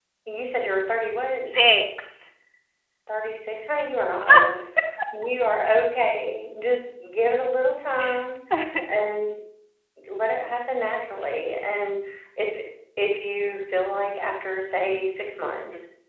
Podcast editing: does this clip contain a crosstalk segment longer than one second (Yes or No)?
No